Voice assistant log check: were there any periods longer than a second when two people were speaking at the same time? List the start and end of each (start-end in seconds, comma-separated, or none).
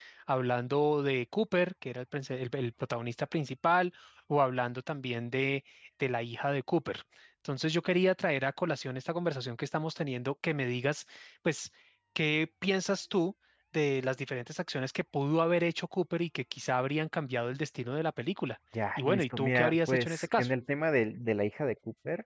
19.0-20.5